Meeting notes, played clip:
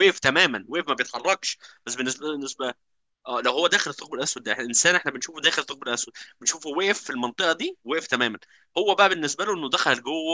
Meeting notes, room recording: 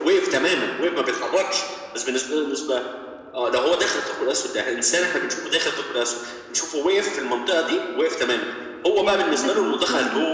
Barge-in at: 8.9 s

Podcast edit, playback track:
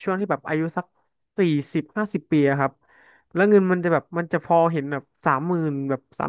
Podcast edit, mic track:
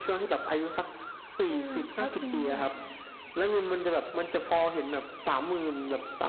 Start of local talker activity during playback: 1.5 s

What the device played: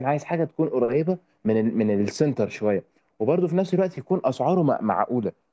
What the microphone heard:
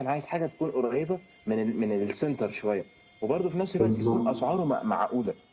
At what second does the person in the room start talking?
3.7 s

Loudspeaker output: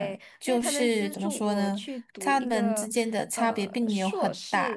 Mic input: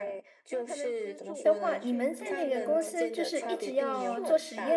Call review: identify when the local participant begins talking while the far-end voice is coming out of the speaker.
1.4 s

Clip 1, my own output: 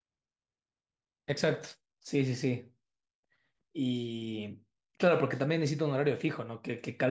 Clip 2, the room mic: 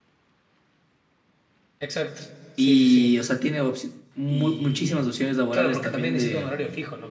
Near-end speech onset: 2.5 s

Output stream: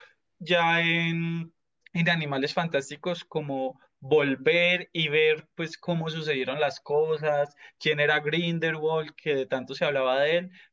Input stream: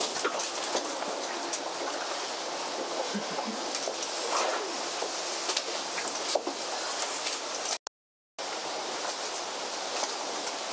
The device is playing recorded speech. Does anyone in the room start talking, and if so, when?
none

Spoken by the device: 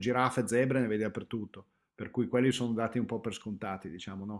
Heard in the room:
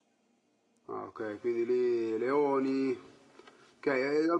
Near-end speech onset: 0.9 s

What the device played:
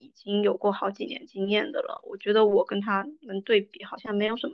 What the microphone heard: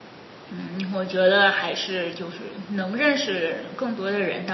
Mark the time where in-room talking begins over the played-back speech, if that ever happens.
0.5 s

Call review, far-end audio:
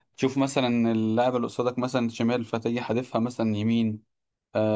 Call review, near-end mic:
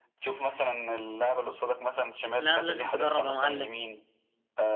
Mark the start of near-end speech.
2.4 s

